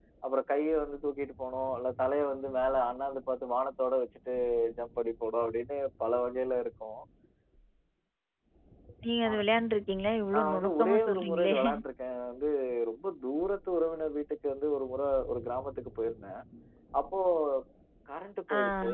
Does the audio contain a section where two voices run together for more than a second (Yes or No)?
Yes